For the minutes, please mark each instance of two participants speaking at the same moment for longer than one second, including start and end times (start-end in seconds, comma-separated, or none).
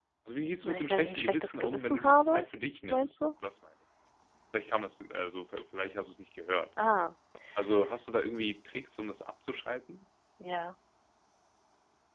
0.6-2.4